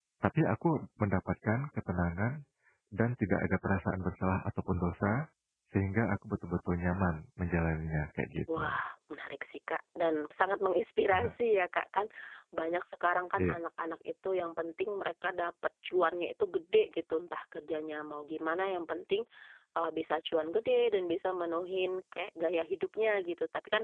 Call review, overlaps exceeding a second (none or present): none